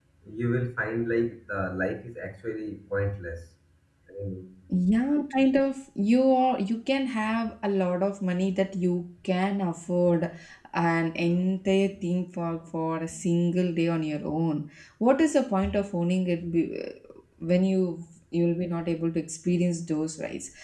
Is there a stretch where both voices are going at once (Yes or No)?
No